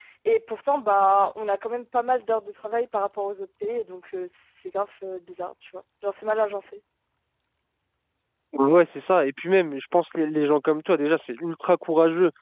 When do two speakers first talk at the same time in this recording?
none

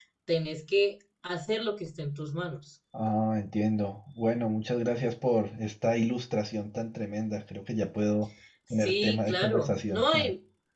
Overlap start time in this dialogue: 9 s

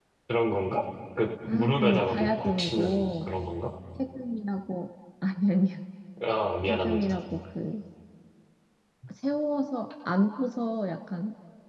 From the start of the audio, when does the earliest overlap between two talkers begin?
1 s

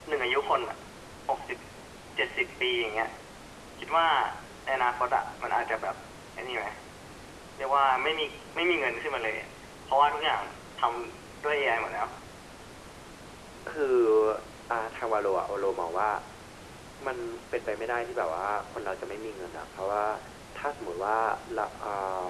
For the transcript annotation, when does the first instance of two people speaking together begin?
none

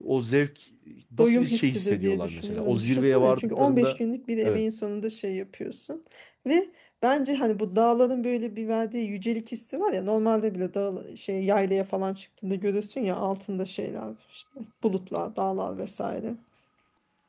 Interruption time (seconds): 1 s

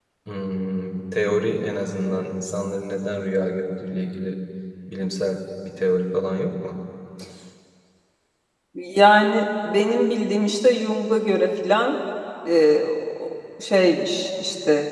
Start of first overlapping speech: none

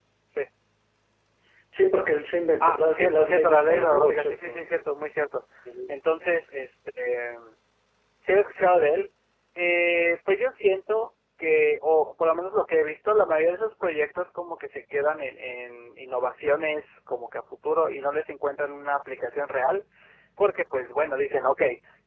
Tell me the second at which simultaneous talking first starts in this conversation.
3 s

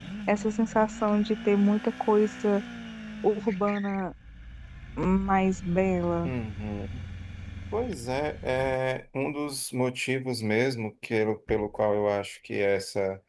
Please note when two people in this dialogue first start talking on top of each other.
none

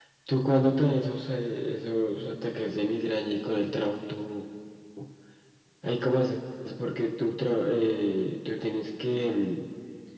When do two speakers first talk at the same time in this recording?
none

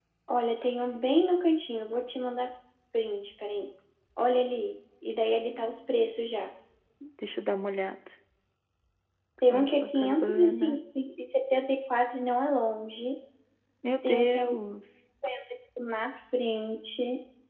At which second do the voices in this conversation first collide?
9 s

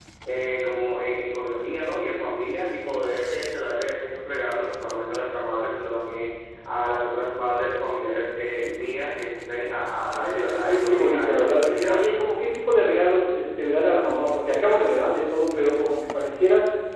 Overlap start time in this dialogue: 10 s

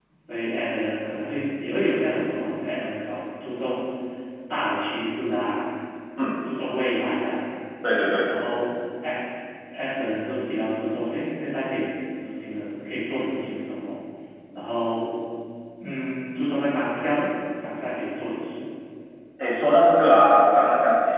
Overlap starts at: none

